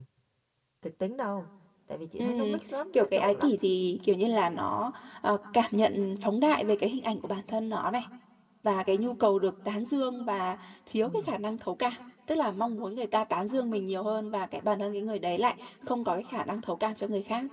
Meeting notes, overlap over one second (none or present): present